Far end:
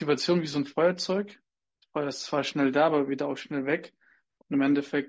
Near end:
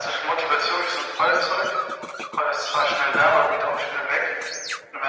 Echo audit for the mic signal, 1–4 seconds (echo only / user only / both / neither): echo only